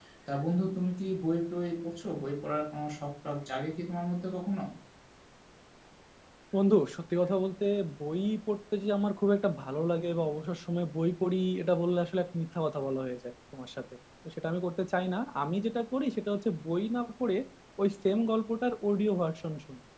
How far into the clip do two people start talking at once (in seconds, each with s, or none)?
none